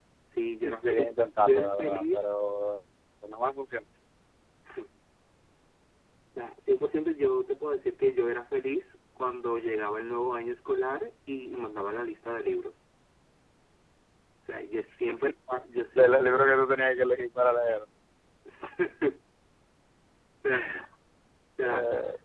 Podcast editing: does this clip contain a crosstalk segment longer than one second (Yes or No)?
Yes